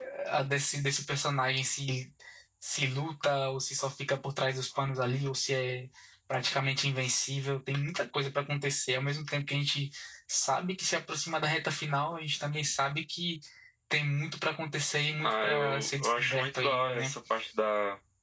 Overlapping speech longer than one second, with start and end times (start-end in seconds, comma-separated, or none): 15.2-17.1